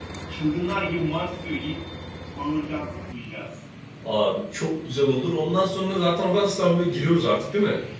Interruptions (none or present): none